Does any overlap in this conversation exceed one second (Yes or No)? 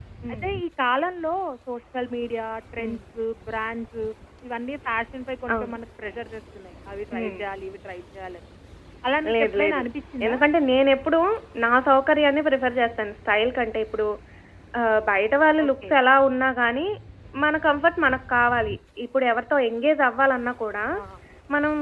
No